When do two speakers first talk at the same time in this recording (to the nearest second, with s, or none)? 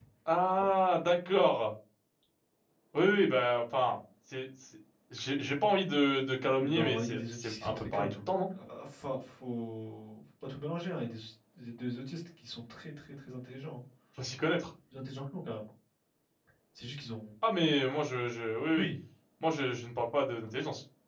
7 s